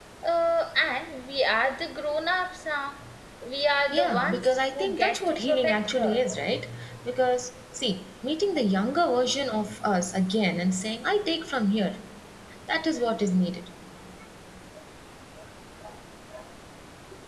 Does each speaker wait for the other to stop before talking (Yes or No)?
No